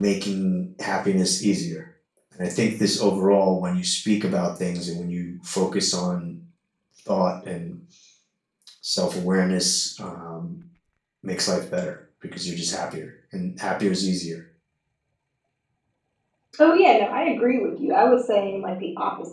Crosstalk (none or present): none